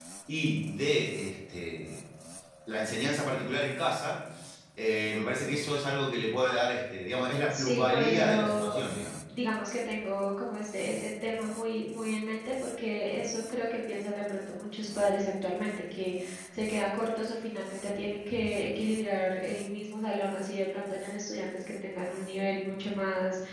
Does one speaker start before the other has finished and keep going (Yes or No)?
Yes